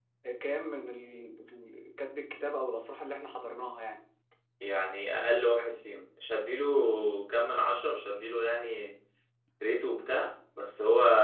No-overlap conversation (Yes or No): Yes